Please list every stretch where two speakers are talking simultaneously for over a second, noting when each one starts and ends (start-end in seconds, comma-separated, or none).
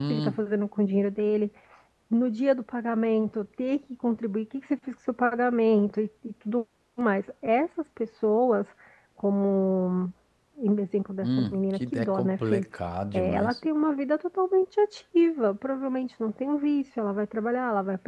11.2-12.7